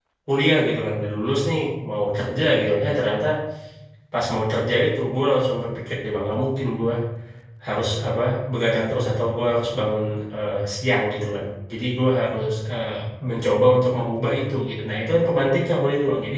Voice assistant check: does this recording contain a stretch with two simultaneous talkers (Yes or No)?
No